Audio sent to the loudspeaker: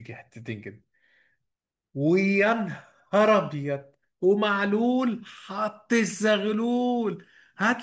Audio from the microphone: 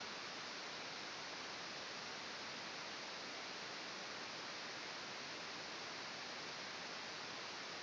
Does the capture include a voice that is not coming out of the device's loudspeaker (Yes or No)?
No